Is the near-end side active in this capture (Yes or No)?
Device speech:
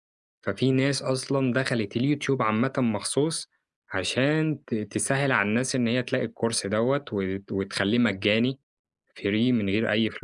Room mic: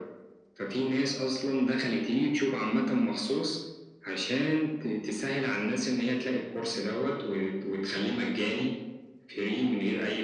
No